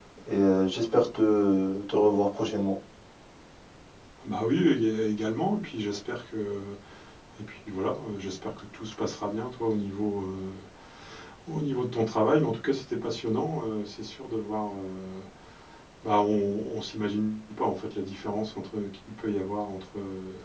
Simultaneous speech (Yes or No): No